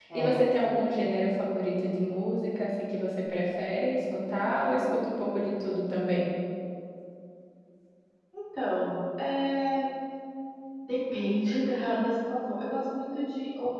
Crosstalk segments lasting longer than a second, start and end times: none

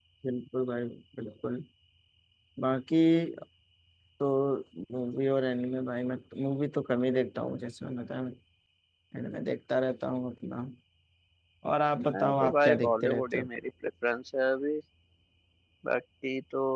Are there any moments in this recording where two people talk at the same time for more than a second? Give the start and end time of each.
12.1-13.5

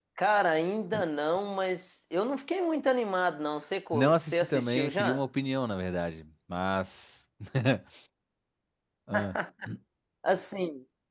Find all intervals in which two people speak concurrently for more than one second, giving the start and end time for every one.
3.9-5.2

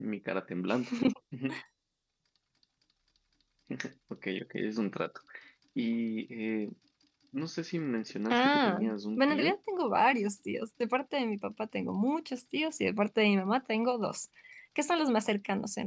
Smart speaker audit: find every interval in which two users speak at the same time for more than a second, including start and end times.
8.3-9.6

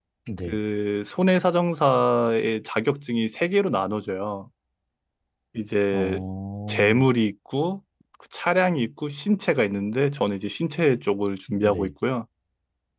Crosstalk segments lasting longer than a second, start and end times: none

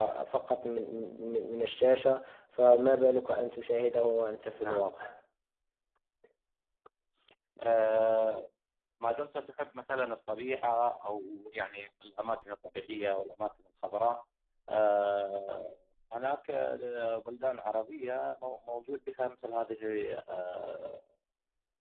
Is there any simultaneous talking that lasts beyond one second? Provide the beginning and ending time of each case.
none

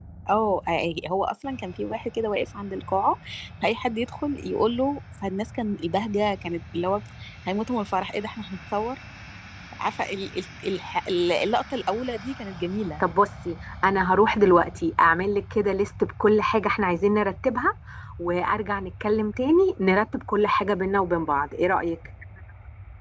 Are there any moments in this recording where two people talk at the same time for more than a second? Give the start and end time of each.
none

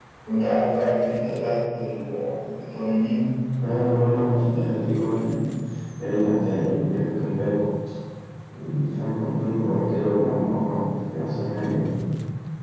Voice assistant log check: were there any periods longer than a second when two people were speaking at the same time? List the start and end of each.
none

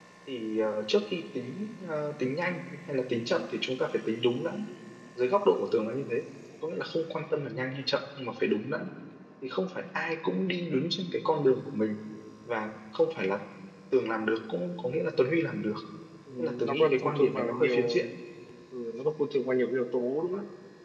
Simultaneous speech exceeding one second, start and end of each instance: 16.4-18.0

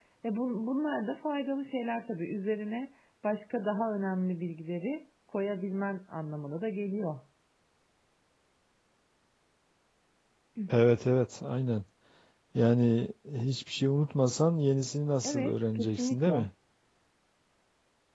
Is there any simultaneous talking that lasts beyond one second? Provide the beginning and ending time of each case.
15.2-16.5

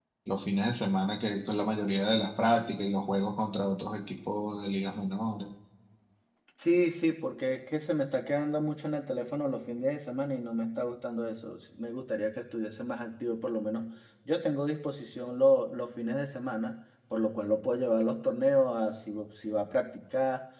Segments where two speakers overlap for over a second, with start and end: none

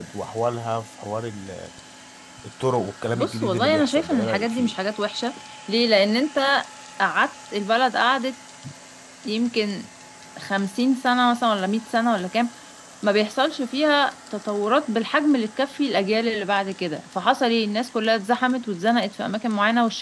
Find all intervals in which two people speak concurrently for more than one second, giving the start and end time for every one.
3.1-4.8

